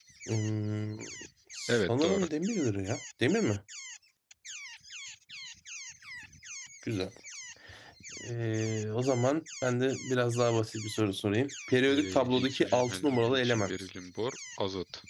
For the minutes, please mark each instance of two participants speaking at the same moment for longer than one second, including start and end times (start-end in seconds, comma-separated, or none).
11.9-13.7